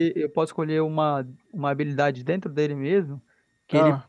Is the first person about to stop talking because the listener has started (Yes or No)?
No